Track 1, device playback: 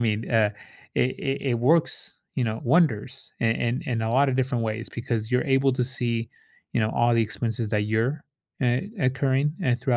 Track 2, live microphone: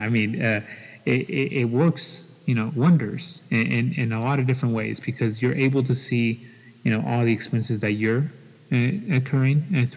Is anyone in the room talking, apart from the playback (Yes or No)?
No